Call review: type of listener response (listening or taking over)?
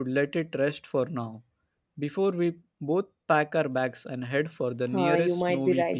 taking over